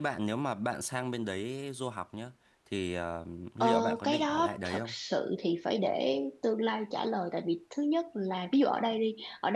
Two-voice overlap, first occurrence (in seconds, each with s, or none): 3.6 s